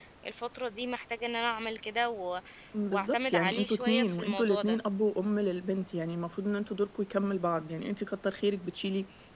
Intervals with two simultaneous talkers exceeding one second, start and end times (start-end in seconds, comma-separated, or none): 2.9-4.8